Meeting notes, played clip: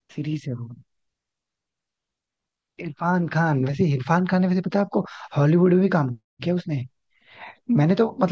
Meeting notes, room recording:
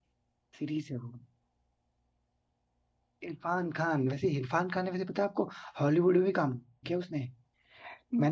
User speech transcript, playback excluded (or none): none